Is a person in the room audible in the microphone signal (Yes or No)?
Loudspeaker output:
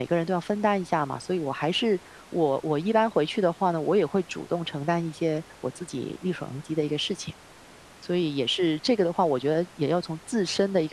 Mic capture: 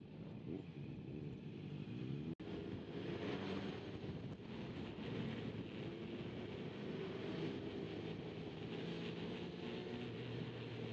No